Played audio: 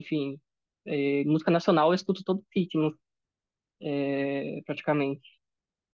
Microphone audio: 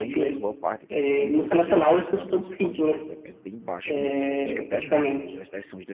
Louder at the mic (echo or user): echo